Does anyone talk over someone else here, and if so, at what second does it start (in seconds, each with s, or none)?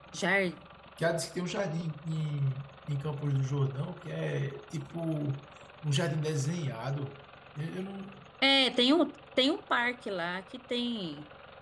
none